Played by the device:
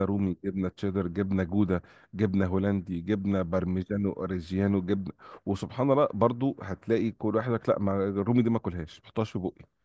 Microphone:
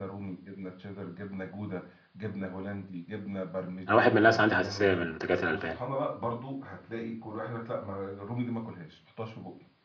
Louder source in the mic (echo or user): user